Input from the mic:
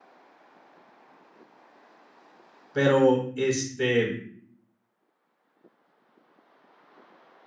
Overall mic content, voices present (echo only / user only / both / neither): user only